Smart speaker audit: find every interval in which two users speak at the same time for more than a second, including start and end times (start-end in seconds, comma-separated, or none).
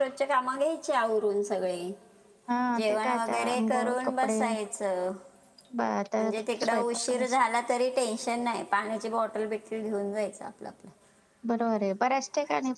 2.8-4.4, 6.2-7.4